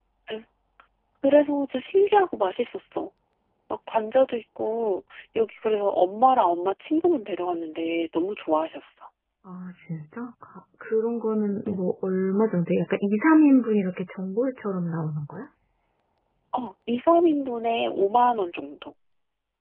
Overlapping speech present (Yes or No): No